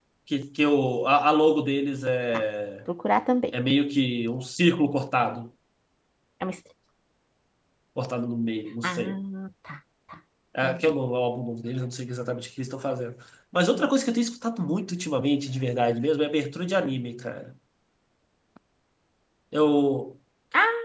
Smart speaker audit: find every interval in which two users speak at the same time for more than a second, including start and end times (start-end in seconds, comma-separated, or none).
none